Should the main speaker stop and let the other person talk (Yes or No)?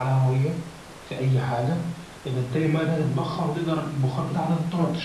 Yes